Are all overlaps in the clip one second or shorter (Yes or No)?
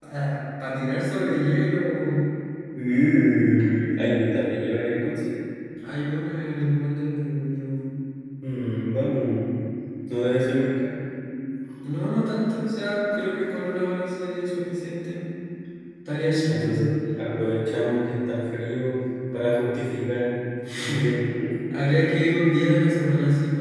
Yes